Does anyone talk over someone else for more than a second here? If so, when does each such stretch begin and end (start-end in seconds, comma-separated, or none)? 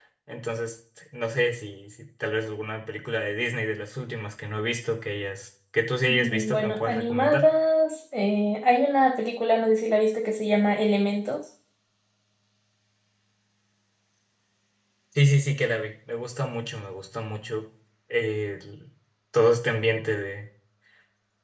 6.1-7.5